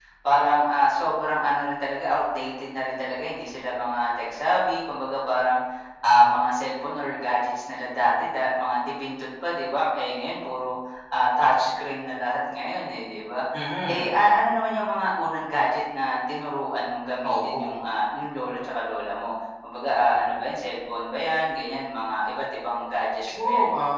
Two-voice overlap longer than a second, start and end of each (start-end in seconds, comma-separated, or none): none